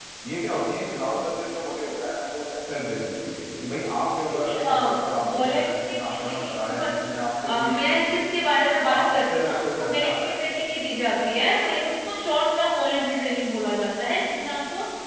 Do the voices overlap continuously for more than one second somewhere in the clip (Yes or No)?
Yes